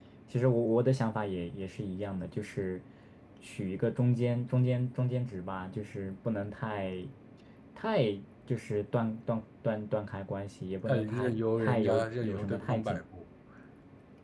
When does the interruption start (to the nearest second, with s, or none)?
11 s